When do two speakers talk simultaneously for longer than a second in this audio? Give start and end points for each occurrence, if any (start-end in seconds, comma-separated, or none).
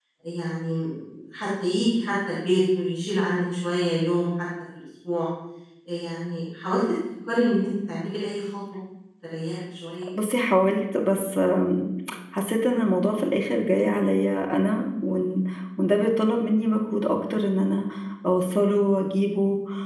none